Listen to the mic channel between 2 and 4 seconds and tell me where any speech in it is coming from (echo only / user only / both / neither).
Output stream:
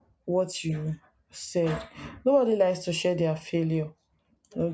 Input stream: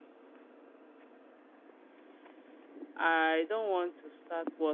user only